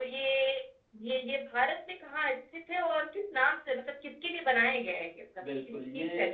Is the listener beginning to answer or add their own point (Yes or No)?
Yes